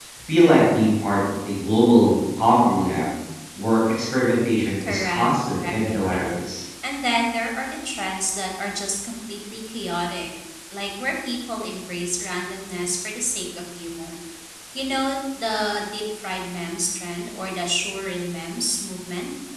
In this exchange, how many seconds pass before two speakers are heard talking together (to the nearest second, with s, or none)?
5 s